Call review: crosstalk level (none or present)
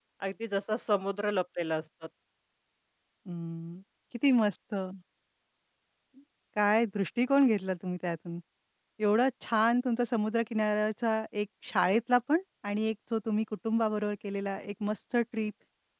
none